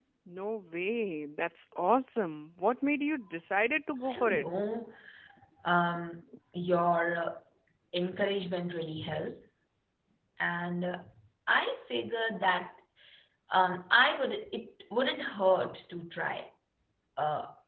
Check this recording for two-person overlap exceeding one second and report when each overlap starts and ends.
none

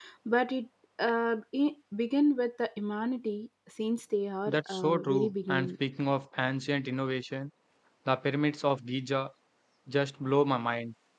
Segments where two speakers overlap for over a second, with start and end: 4.5-5.7

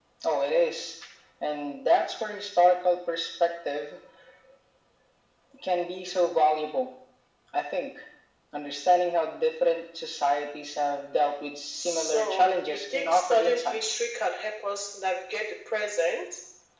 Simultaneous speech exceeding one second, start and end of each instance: 11.7-13.8

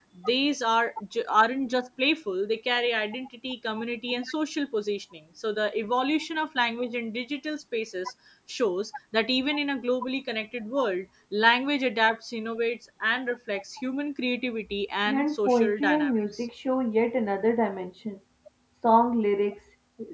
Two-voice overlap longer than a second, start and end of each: 15.1-16.5

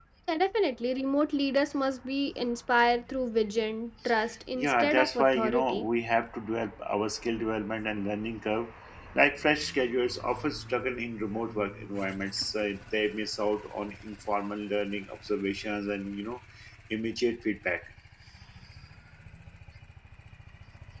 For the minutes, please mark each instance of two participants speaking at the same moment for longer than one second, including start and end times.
4.6-5.9

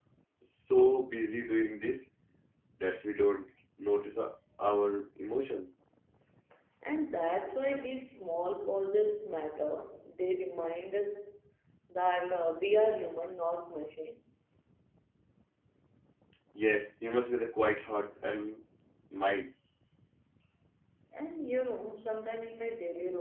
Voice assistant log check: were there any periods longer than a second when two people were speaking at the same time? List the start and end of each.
none

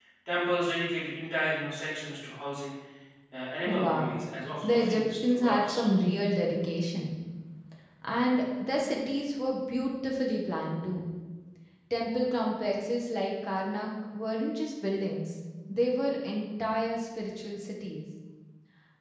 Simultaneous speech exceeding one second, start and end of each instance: 4.6-5.9

